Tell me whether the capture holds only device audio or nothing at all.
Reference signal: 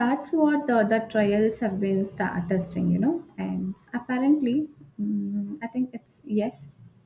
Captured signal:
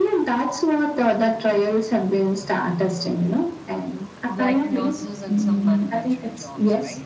No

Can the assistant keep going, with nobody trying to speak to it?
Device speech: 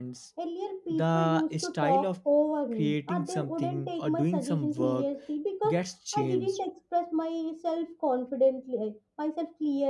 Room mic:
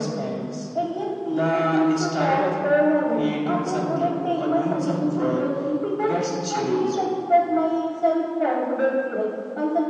Yes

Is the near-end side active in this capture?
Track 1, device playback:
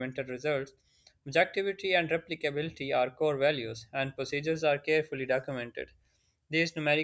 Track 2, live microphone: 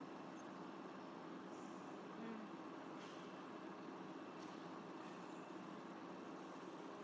No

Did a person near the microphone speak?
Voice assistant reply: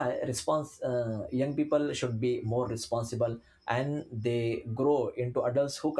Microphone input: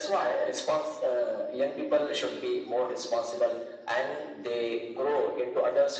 No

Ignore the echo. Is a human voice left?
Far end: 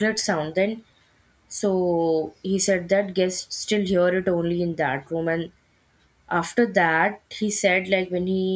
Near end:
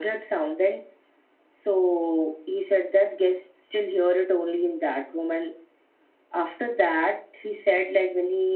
No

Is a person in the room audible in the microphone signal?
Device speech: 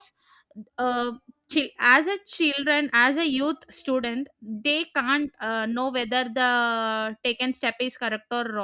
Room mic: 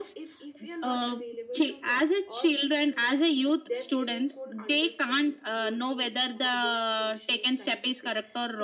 Yes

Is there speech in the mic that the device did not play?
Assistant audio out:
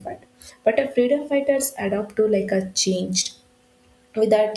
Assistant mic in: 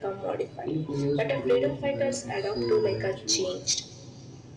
Yes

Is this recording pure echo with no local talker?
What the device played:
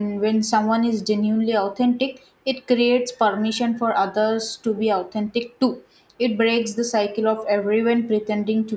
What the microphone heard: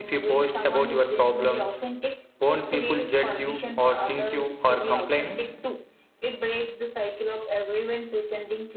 No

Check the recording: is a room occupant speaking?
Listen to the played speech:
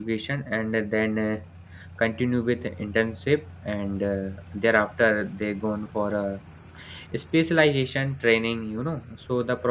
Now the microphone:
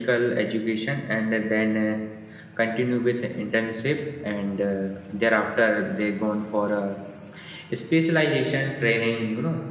No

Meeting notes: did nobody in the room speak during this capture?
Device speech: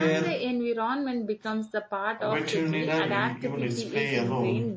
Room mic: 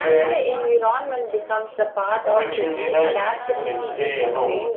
No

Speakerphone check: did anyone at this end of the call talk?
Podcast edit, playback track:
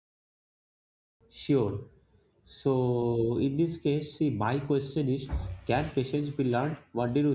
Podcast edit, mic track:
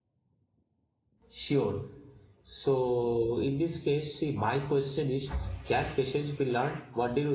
No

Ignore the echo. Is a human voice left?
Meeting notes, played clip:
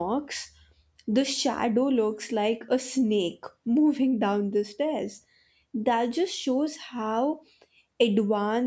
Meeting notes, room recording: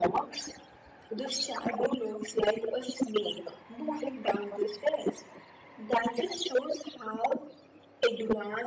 No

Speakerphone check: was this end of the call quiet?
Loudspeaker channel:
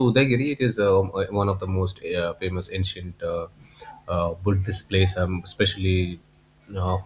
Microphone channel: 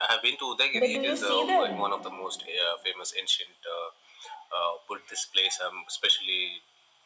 No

